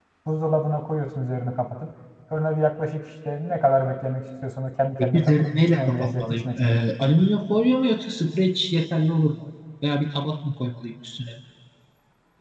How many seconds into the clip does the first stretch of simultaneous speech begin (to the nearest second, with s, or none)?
5 s